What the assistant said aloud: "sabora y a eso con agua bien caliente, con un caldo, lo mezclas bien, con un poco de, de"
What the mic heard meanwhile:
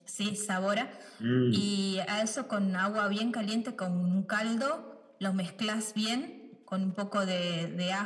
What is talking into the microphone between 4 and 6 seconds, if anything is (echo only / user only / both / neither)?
echo only